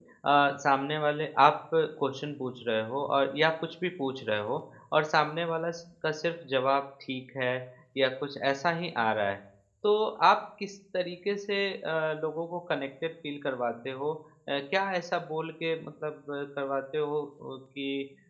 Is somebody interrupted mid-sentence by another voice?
No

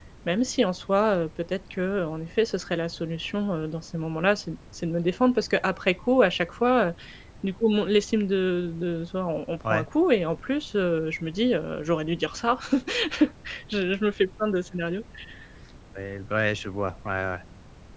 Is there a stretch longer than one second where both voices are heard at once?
No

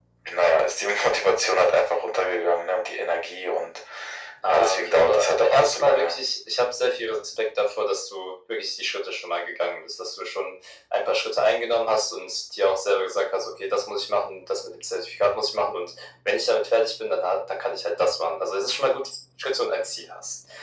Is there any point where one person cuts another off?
Yes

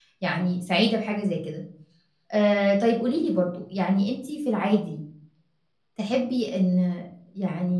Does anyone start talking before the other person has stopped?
No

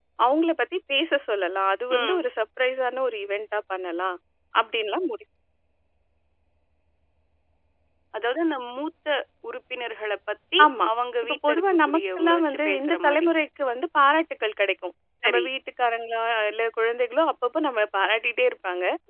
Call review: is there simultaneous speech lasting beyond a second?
Yes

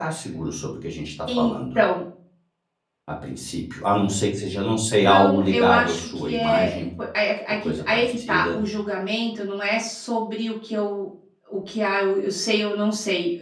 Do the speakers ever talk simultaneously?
Yes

